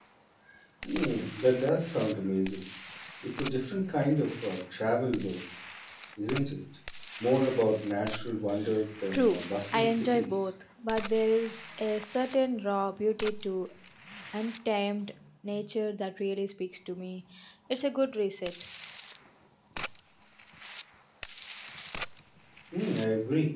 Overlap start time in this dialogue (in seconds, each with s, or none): 9.1 s